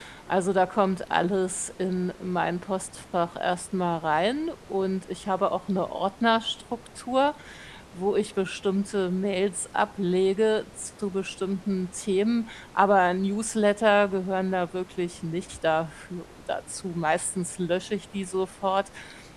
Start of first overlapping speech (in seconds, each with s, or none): none